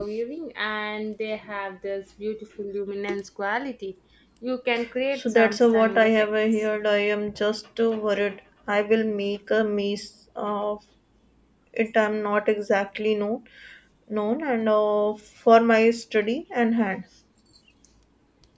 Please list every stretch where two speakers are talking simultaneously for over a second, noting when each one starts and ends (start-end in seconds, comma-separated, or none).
5.2-6.6